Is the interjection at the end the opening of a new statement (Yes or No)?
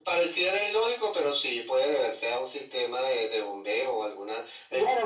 Yes